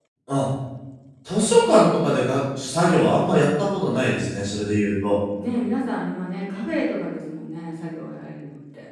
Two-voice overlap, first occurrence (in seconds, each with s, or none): none